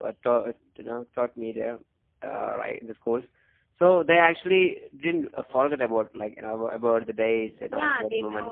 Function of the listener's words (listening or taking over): taking over